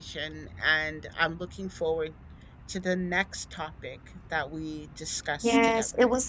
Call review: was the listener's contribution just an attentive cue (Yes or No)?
No